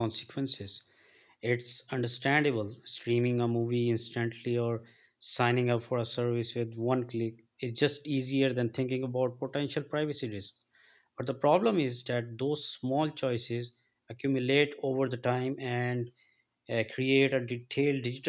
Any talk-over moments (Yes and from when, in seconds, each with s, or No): No